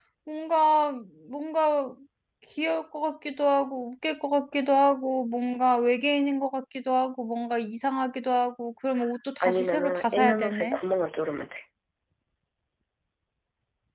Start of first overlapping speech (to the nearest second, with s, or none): 9 s